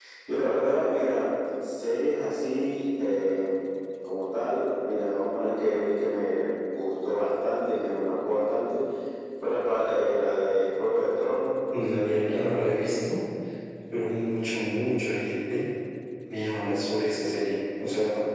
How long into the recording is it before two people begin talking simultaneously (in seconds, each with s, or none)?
11.7 s